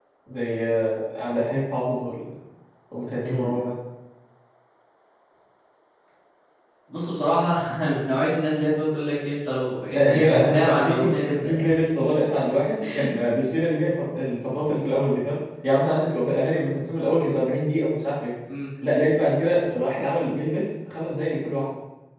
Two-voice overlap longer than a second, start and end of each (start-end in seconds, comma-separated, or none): 10.0-11.5